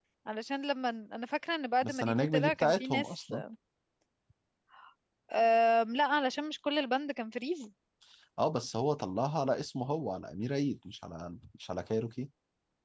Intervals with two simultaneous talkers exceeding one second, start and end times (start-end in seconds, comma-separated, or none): 1.8-3.3